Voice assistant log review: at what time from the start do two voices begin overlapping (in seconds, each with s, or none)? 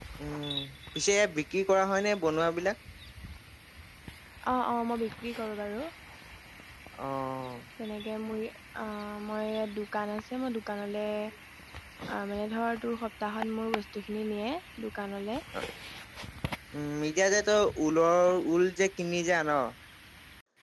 none